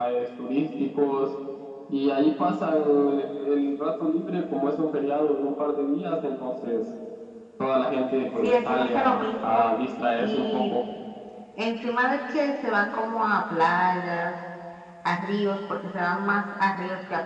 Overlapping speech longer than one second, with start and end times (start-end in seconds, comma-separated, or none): 8.4-9.6